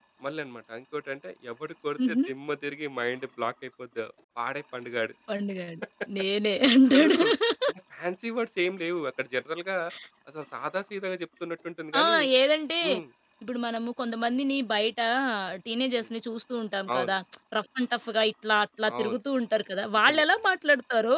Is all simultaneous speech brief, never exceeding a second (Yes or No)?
Yes